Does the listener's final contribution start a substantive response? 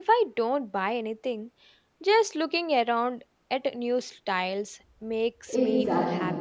Yes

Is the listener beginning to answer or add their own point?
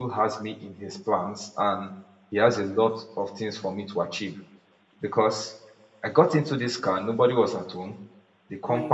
No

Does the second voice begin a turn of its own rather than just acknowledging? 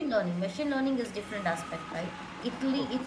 No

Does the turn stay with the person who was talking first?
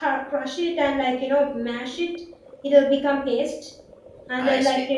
Yes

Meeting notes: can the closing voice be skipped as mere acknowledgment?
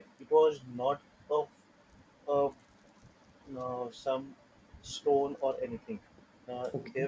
Yes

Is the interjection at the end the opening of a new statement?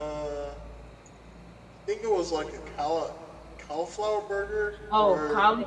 Yes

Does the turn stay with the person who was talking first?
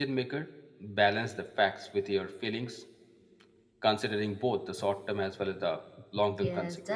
No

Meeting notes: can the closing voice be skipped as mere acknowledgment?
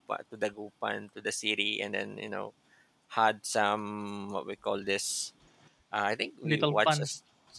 Yes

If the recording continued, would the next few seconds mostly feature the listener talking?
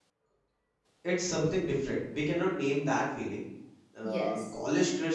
No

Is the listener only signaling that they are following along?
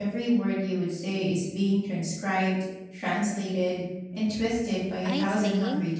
No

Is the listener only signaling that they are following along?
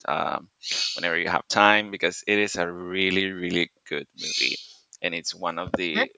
Yes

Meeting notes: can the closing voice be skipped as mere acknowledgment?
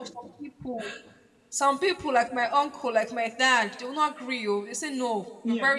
Yes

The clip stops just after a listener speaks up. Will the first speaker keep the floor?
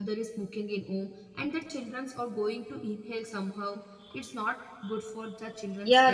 No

